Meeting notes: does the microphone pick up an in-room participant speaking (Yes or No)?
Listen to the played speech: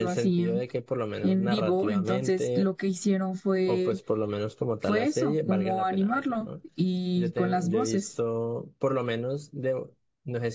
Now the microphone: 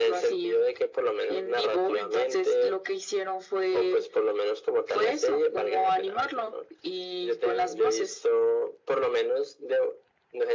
No